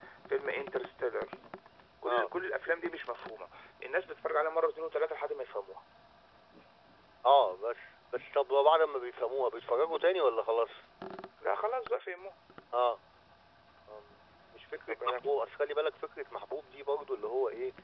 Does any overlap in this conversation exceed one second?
No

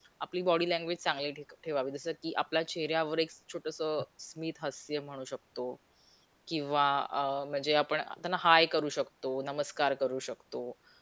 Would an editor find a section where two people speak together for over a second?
No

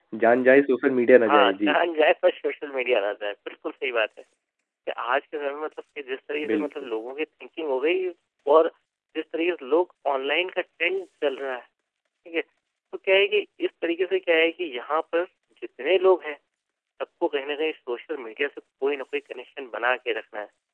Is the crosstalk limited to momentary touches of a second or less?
Yes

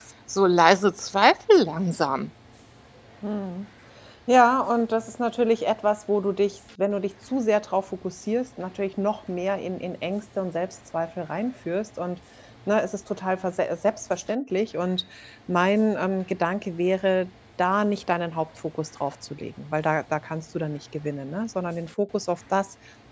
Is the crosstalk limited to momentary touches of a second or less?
Yes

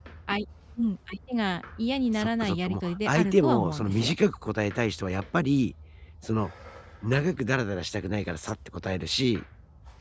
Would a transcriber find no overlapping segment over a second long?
No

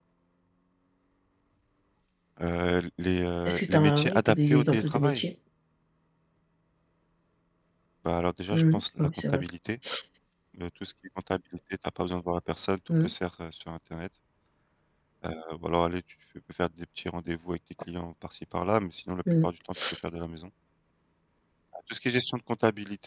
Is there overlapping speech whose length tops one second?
Yes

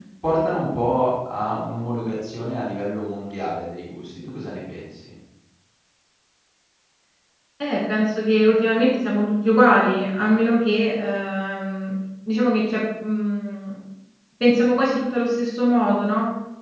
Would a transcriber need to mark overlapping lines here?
No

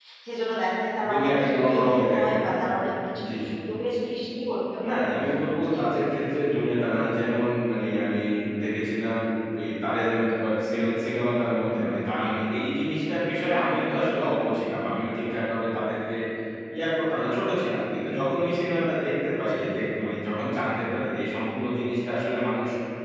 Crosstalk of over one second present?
Yes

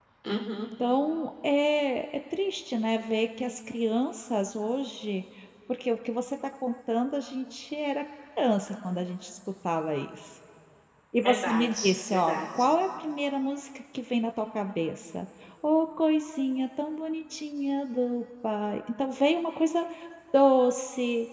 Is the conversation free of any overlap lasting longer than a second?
No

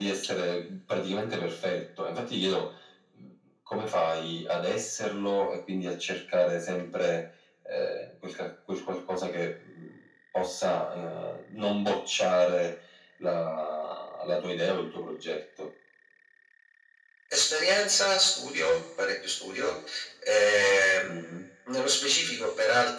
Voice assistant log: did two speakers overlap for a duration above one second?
No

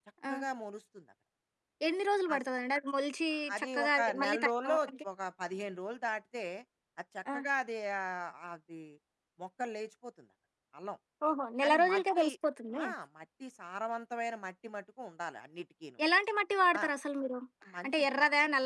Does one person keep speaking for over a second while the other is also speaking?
Yes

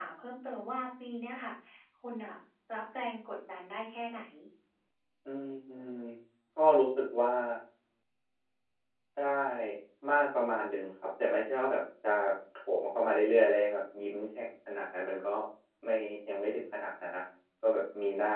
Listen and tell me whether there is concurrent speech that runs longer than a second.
No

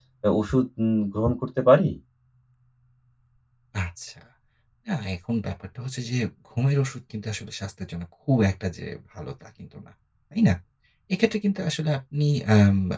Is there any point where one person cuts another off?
No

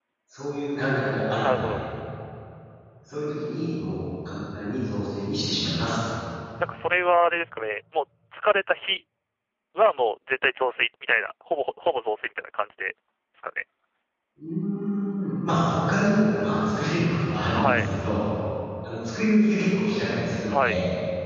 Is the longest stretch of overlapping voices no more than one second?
Yes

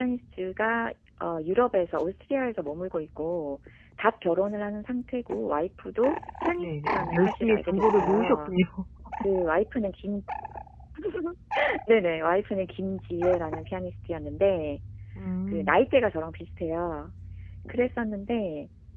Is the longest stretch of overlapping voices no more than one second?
No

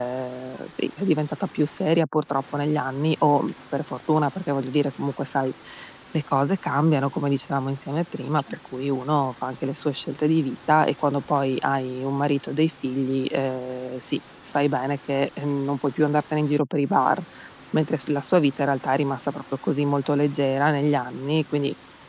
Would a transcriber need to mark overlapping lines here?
No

